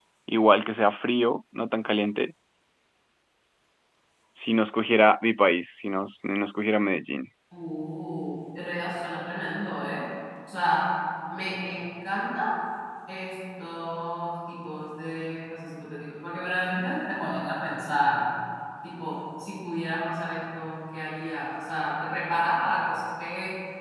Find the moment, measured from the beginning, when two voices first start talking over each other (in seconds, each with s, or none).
none